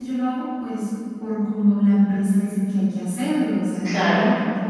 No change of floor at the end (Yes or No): Yes